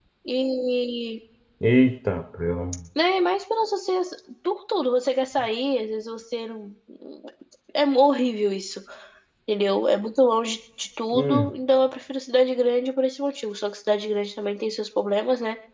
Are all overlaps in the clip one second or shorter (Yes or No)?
Yes